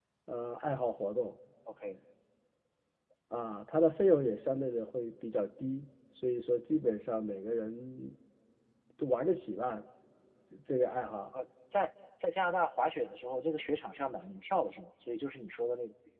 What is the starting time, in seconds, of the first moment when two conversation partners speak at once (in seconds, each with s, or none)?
none